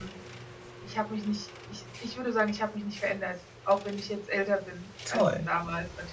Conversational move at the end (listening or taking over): listening